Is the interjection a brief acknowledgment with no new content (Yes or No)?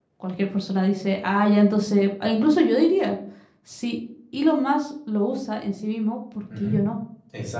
No